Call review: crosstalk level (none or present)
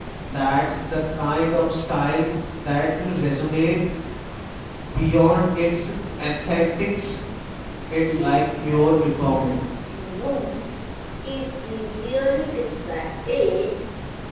present